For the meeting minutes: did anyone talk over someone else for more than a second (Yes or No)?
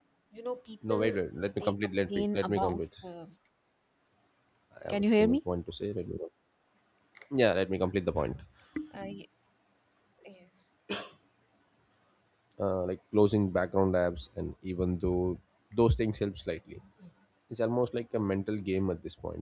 Yes